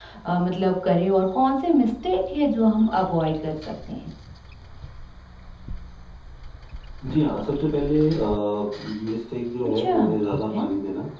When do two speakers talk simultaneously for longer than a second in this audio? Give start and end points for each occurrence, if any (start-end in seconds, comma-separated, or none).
none